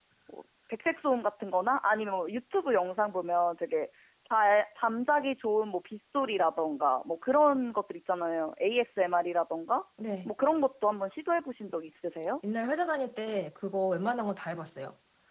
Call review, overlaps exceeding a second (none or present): none